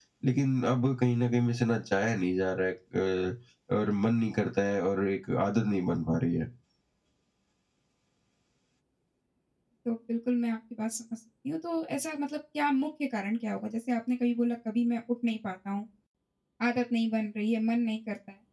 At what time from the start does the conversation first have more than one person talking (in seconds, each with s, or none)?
none